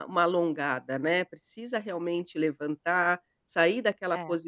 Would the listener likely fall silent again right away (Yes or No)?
Yes